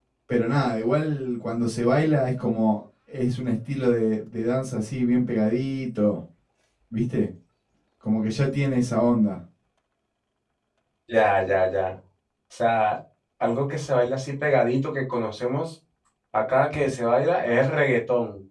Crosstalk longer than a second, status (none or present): none